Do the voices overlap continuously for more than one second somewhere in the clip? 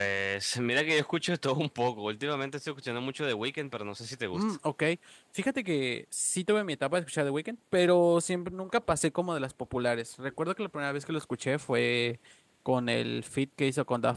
No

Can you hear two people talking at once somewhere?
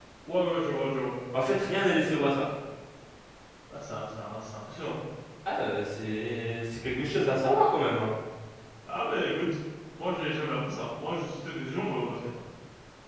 No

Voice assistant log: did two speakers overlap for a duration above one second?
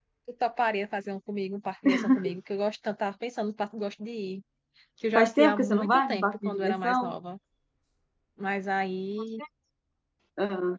Yes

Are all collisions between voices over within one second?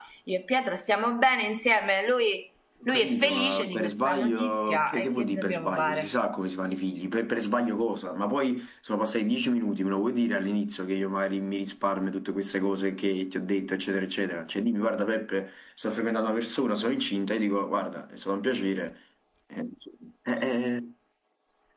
No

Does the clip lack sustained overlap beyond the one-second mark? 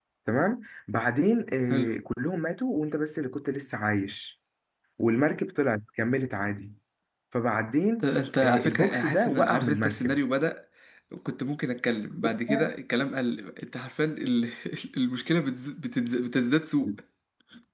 No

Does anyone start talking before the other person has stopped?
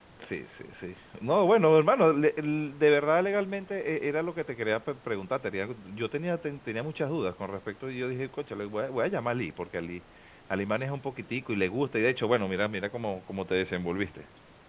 No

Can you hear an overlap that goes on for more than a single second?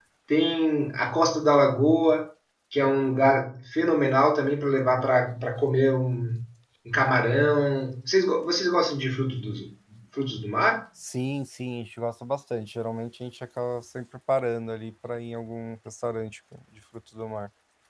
No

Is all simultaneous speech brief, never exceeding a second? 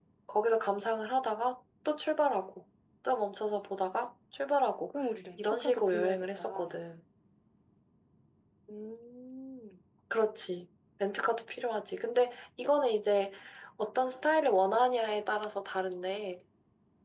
No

